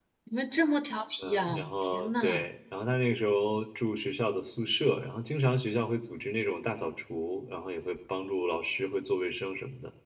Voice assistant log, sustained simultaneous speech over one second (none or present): present